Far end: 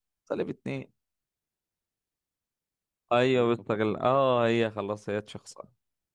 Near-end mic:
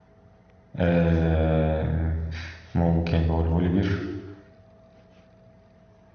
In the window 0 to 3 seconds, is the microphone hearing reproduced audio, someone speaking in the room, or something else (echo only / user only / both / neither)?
user only